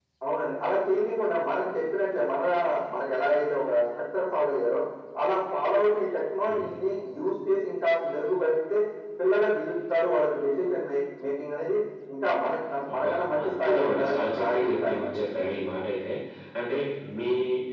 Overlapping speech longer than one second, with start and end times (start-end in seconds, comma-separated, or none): 12.9-15.2